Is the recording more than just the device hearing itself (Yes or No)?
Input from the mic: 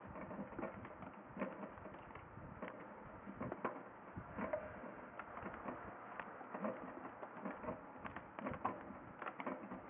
No